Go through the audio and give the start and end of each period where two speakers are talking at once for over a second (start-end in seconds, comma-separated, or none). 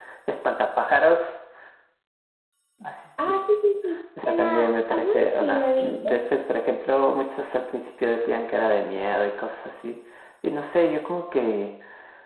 4.2-6.3